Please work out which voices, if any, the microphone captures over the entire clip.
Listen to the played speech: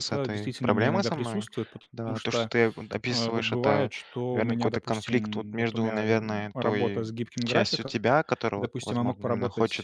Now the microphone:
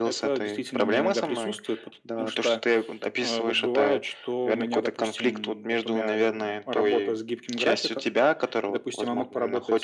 echo only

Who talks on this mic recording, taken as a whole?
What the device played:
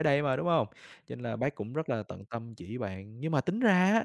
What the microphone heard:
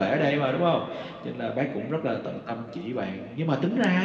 echo only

